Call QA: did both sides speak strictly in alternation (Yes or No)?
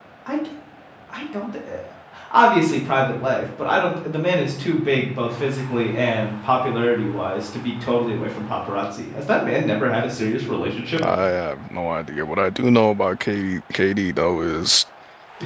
Yes